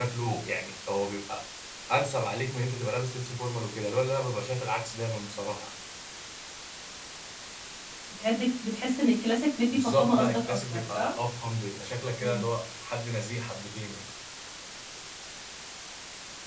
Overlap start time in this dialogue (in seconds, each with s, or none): 9.7 s